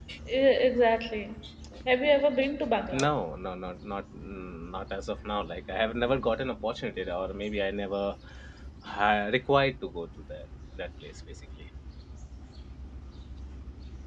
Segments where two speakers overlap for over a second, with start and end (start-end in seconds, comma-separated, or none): none